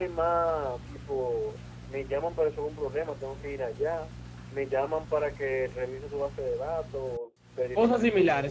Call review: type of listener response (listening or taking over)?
taking over